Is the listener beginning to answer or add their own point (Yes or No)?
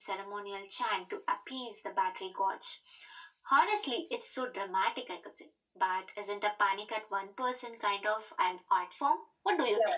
Yes